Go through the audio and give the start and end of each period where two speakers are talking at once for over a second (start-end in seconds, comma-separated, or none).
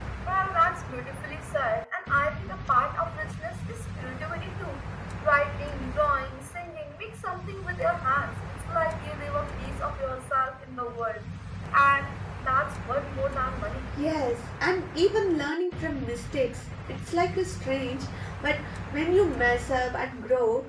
none